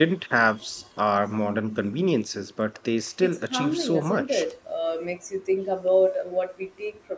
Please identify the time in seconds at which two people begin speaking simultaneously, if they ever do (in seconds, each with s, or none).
3.2 s